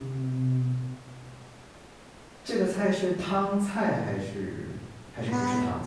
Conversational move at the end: taking over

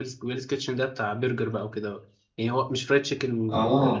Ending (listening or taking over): listening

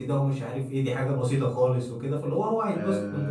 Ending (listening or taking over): taking over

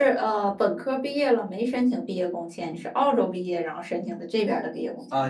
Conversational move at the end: taking over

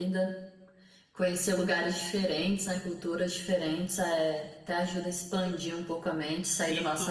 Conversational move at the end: taking over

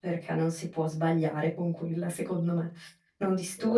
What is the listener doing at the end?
listening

